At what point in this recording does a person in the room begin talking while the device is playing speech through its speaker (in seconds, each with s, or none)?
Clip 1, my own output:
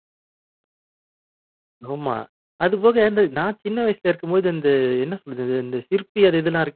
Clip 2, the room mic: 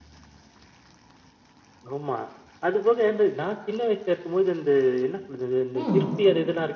5.7 s